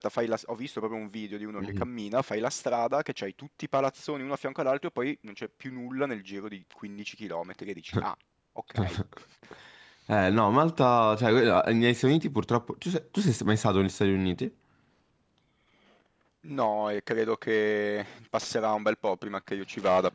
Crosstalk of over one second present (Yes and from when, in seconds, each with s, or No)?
No